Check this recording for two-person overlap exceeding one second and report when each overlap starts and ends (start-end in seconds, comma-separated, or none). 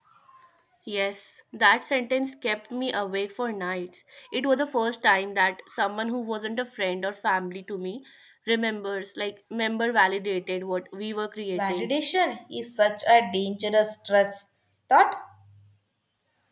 none